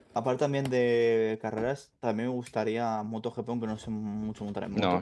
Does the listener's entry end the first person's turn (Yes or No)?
Yes